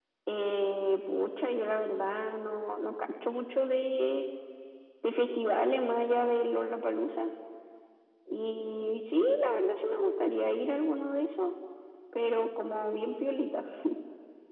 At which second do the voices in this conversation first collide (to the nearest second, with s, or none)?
none